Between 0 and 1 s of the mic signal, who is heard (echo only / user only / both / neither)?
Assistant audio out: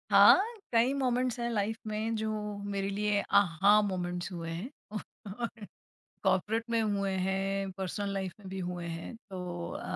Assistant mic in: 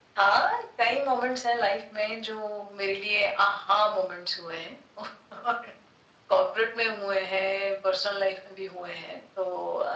echo only